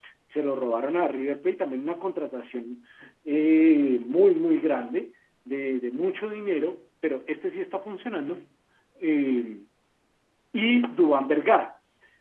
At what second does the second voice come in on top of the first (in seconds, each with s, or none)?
none